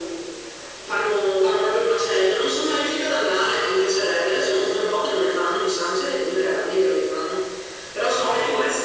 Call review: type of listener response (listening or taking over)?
taking over